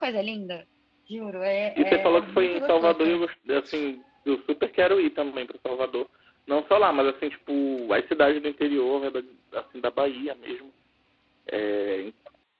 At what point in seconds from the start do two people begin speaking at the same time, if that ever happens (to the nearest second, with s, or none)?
2 s